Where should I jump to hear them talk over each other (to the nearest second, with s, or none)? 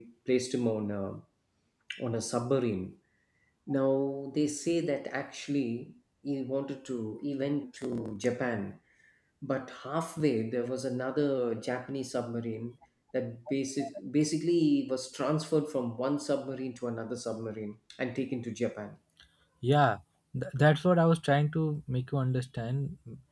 none